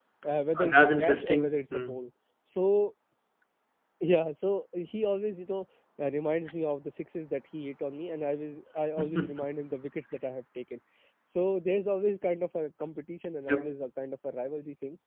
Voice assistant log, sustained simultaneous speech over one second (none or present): present